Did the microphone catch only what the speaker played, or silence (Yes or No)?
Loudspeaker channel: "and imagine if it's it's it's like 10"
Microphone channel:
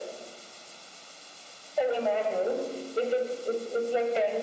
Yes